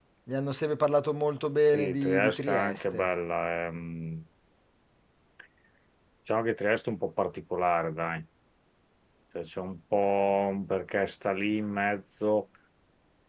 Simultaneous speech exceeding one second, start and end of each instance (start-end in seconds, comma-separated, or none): 1.7-3.1